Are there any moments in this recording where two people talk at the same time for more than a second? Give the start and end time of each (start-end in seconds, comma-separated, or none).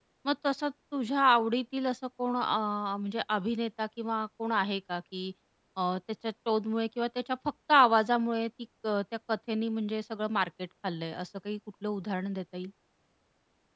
none